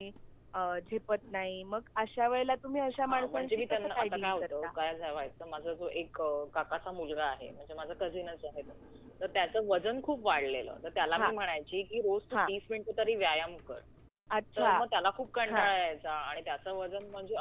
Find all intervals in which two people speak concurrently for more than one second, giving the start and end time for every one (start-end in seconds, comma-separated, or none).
3.1-4.7